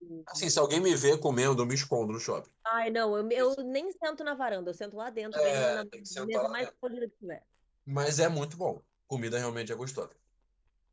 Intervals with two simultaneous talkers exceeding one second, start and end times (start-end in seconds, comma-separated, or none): 5.3-6.7